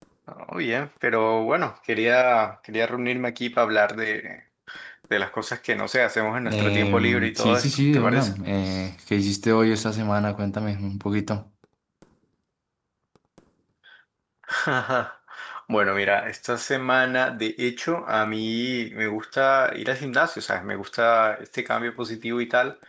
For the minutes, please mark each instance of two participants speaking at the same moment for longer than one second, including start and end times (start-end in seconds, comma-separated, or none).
6.5-8.3